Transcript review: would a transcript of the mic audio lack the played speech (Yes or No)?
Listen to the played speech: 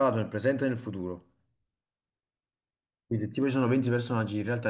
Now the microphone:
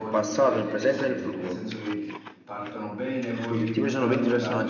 No